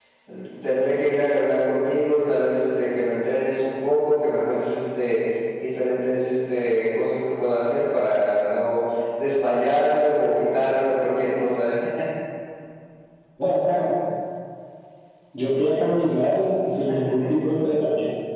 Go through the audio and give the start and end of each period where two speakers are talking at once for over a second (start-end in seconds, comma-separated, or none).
none